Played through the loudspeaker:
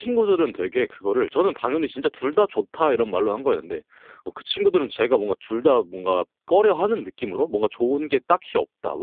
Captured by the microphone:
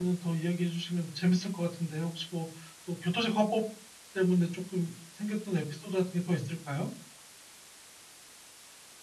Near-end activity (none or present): present